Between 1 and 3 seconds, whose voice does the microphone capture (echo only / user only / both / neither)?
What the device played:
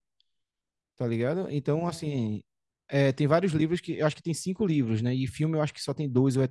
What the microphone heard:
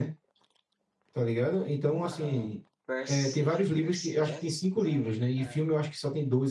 both